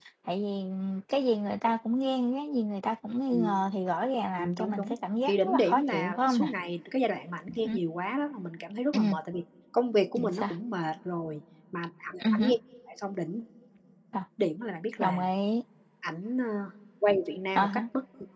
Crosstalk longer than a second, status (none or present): present